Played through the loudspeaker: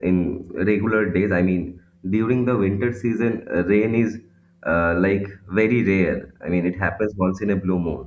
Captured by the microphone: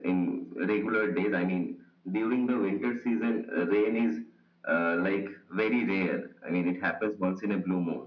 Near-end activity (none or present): none